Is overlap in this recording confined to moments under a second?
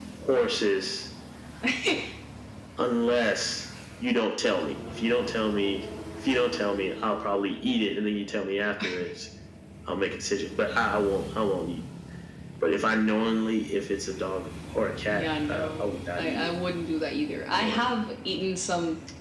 No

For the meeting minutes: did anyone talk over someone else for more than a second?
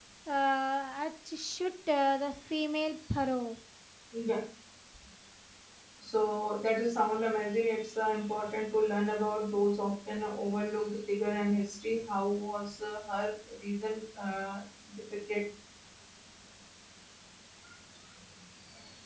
No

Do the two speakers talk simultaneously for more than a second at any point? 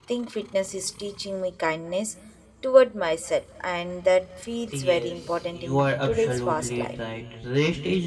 Yes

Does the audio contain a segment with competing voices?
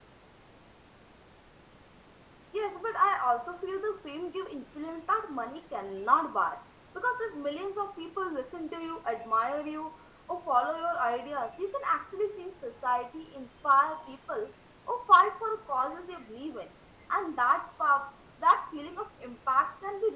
No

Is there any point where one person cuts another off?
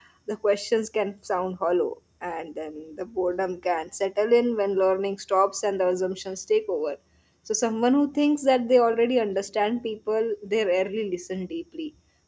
No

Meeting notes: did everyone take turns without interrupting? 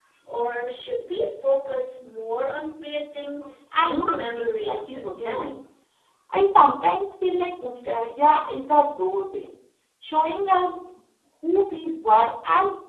No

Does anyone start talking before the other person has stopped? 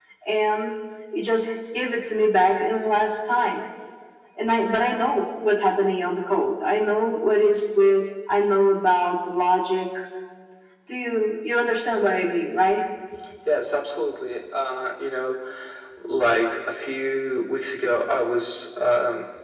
No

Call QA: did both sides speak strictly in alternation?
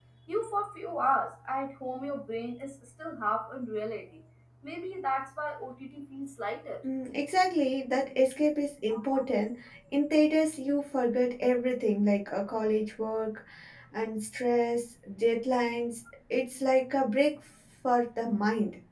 Yes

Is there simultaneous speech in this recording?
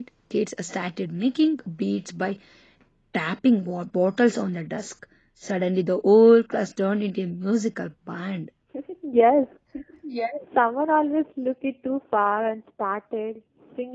No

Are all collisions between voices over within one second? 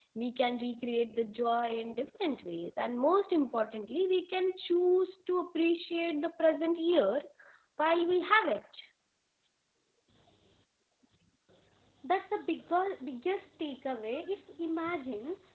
Yes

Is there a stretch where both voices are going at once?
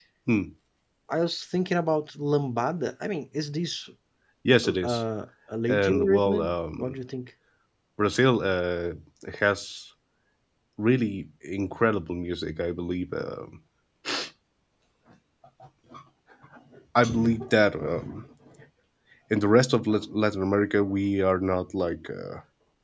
Yes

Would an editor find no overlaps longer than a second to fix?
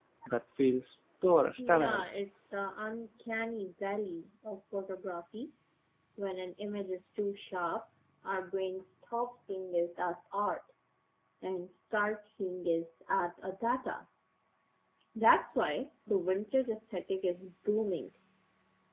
Yes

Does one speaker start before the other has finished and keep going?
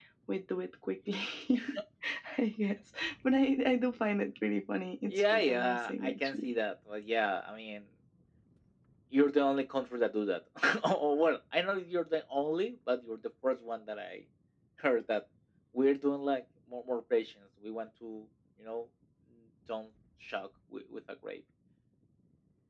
Yes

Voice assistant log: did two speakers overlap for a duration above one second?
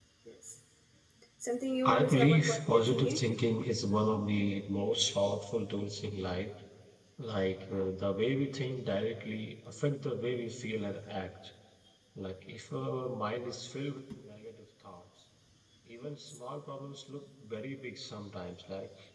Yes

